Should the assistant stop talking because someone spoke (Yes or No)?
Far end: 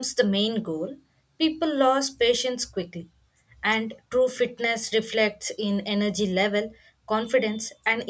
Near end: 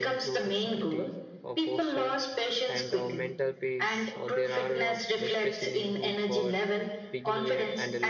Yes